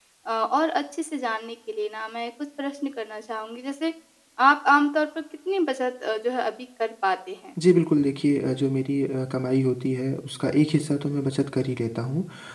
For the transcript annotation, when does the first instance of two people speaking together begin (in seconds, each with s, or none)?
none